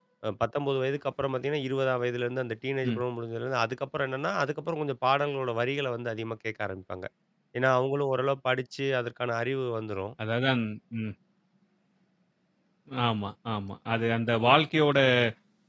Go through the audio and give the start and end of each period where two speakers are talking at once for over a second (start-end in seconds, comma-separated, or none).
none